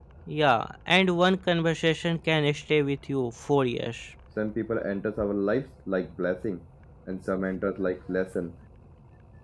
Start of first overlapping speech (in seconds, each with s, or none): none